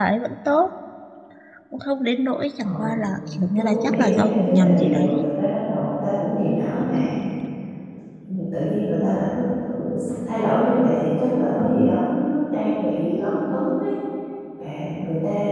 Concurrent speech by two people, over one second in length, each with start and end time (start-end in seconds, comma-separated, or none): 3.6-5.3